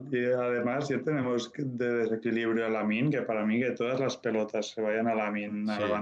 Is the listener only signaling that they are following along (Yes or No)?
Yes